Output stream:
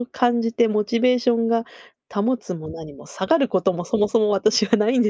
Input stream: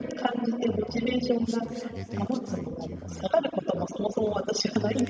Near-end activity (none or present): present